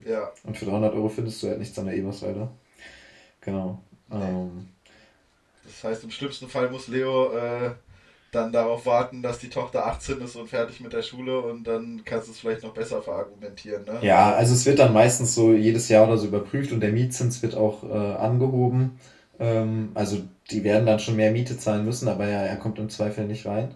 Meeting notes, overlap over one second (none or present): none